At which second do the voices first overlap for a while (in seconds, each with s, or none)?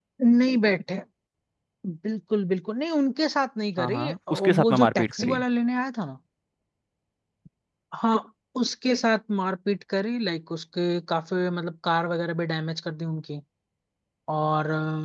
3.8 s